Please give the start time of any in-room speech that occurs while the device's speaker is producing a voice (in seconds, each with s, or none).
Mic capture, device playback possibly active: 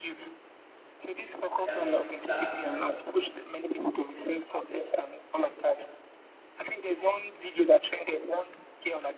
1.6 s